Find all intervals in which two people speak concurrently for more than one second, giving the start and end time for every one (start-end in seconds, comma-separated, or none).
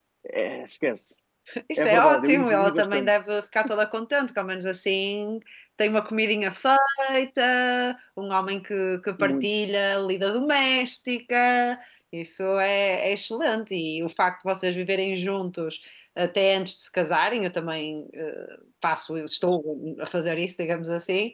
1.8-3.1